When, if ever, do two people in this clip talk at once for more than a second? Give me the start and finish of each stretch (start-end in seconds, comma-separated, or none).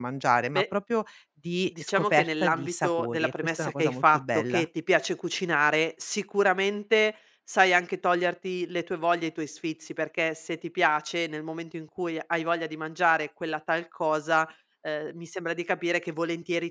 1.8-4.6